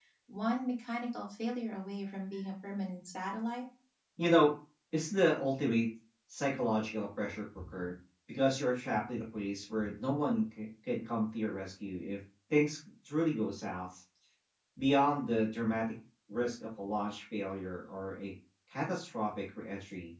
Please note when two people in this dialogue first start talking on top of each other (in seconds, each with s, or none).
none